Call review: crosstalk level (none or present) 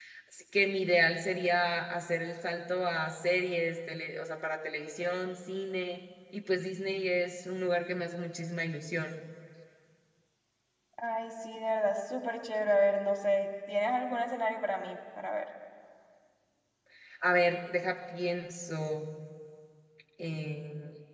none